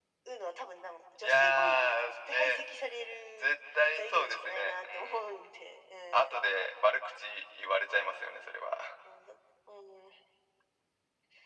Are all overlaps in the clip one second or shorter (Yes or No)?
No